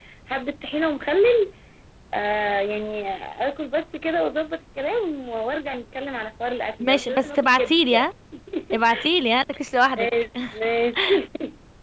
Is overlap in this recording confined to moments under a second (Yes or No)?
No